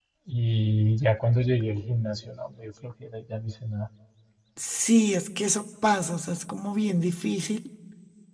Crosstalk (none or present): none